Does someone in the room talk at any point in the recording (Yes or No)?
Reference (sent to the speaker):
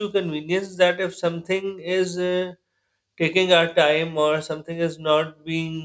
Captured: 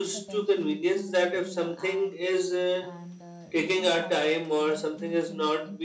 Yes